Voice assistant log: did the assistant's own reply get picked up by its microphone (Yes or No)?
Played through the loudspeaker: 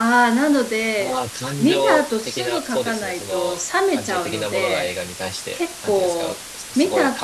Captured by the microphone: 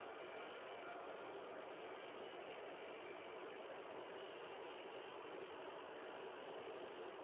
No